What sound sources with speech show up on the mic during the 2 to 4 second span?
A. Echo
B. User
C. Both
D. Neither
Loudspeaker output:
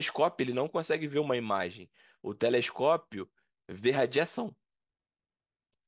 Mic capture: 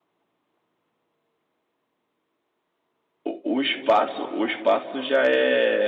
B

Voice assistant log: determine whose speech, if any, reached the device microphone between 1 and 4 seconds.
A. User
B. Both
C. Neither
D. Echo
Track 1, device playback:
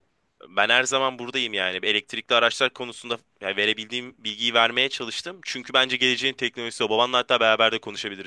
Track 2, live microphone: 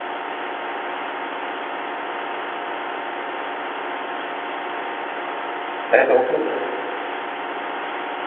C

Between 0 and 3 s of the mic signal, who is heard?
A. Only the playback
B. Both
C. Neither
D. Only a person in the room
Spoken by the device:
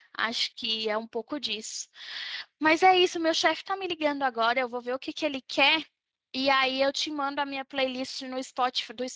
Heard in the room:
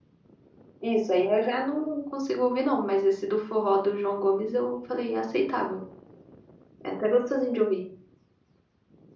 D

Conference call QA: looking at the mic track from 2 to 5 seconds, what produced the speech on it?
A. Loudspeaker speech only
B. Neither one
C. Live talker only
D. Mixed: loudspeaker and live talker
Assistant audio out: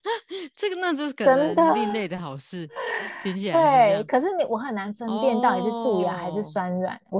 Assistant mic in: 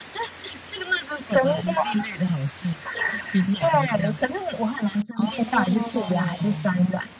A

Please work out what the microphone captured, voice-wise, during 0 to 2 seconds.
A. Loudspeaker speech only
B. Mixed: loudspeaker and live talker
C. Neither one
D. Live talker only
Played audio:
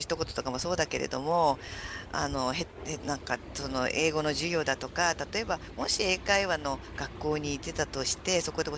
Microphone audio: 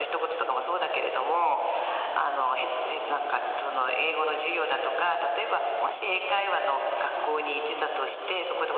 A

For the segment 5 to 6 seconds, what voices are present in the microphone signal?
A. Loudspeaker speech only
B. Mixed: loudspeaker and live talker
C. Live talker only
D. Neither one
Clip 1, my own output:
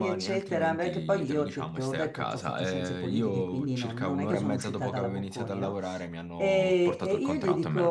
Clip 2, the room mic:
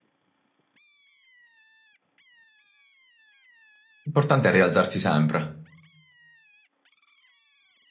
C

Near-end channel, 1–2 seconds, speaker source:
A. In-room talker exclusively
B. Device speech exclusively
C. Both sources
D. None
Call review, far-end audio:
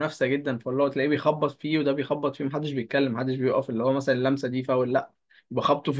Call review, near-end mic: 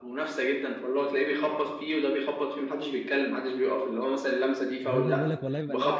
B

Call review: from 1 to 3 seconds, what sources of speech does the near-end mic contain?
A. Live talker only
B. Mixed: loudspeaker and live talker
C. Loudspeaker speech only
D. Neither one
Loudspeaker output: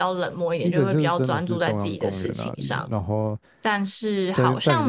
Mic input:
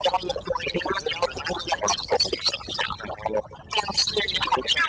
C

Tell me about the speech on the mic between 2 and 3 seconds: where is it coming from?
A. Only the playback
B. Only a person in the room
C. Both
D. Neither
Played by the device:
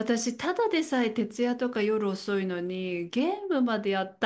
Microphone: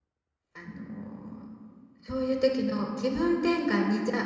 B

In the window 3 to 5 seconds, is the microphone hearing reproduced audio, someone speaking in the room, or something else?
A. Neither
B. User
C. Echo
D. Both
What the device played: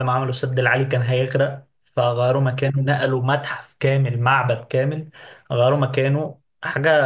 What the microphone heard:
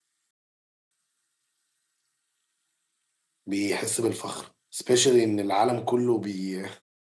B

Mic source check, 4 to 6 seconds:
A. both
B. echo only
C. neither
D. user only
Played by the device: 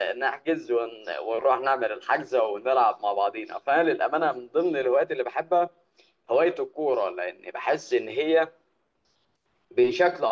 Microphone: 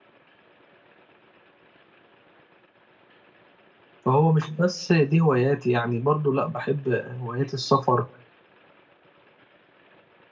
D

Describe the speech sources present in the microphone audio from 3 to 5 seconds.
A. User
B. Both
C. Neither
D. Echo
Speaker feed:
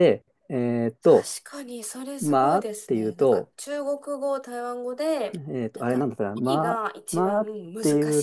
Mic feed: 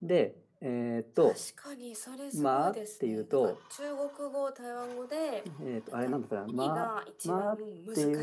D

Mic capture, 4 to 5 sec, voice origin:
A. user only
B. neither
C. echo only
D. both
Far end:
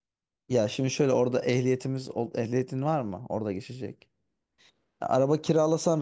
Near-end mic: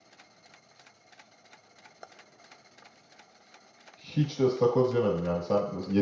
A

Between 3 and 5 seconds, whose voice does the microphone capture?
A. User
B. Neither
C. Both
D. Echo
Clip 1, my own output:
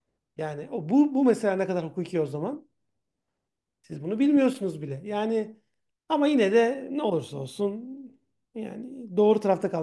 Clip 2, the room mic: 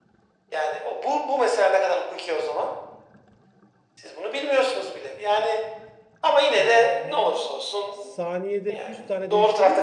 D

